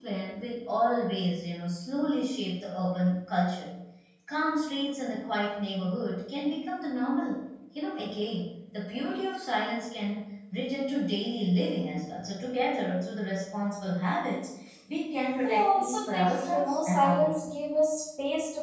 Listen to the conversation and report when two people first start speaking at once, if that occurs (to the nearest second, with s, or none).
15 s